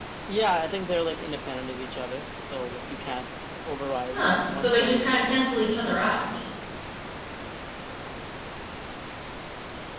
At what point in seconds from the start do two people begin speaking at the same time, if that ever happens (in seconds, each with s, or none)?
4.1 s